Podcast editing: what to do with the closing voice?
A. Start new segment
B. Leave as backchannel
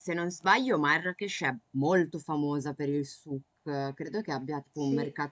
B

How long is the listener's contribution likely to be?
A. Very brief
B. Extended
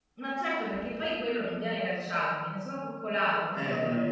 B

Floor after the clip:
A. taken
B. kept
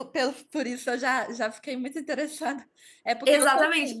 A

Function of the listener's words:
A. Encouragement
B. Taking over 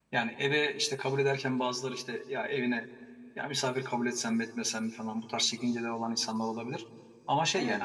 A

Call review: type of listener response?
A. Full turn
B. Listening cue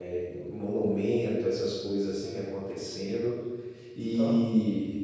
B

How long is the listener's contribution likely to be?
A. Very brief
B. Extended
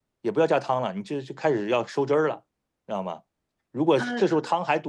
A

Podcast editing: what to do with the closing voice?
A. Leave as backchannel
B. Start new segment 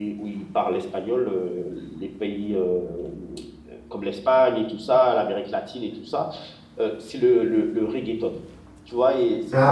A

